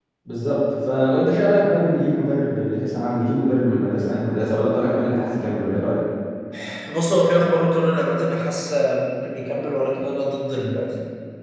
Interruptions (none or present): none